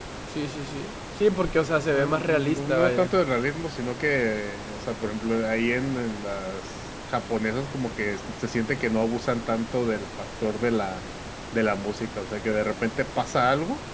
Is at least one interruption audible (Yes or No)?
Yes